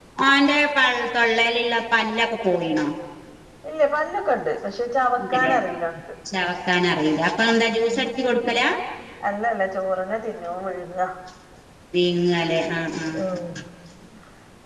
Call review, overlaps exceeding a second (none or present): none